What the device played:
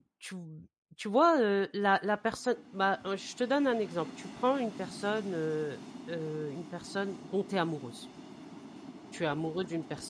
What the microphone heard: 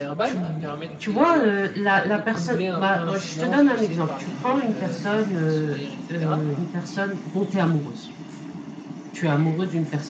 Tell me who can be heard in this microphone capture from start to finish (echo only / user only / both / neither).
both